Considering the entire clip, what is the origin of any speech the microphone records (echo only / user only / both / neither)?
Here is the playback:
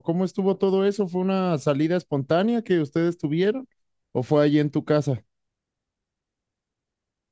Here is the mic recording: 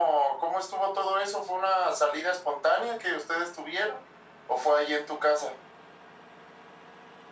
echo only